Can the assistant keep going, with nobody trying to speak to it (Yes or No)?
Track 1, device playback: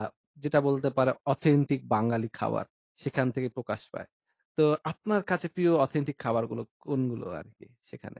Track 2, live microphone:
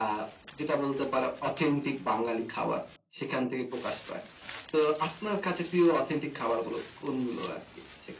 Yes